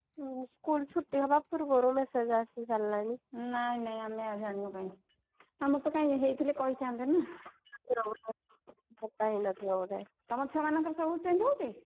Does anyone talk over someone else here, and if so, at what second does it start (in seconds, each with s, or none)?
none